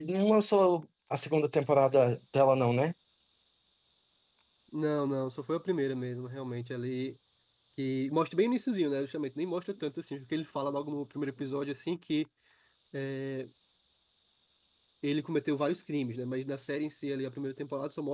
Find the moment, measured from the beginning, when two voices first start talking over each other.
none

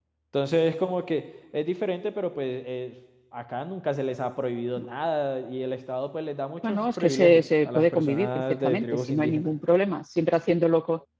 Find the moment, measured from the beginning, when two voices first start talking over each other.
6.6 s

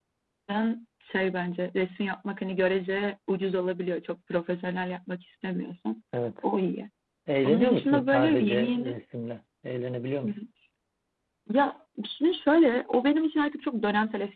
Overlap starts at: 7.4 s

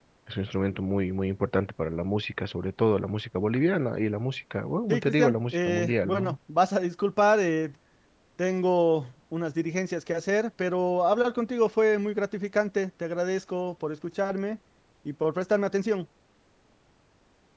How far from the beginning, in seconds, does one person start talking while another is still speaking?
4.9 s

